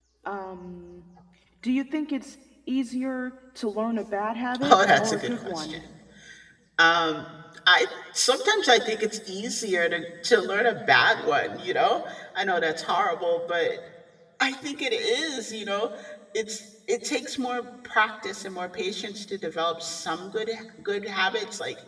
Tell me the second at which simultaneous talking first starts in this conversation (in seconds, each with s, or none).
4.5 s